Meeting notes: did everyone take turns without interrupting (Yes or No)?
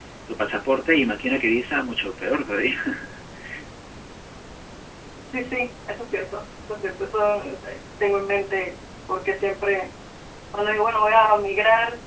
Yes